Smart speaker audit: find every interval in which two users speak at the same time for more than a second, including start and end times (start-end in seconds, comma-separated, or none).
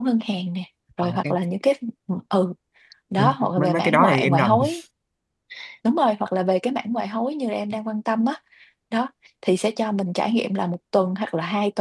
3.2-4.6